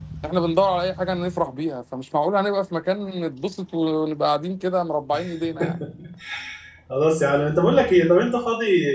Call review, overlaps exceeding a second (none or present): none